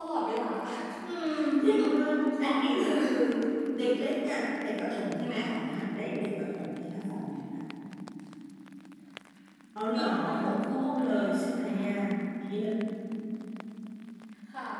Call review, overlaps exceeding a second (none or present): present